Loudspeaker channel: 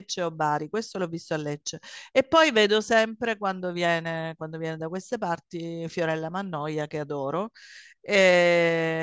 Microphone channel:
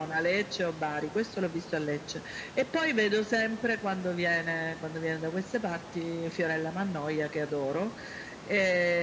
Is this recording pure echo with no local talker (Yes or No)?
Yes